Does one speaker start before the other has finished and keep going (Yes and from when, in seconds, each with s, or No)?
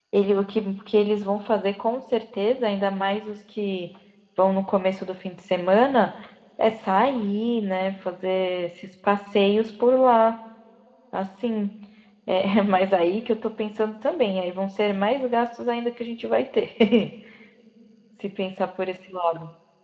No